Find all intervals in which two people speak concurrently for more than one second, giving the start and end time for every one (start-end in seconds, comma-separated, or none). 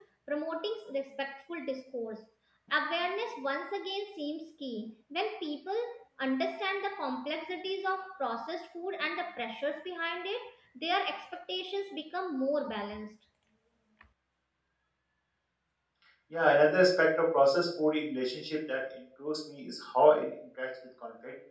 none